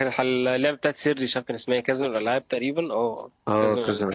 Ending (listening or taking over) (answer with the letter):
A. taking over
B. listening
A